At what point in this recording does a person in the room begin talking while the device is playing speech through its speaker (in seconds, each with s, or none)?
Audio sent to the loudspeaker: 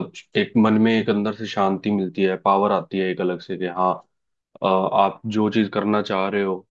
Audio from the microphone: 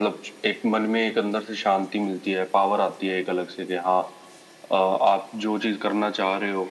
none